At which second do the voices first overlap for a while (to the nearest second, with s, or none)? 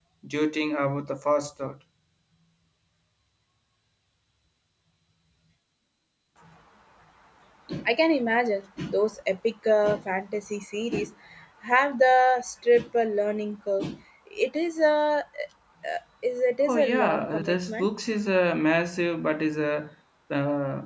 17 s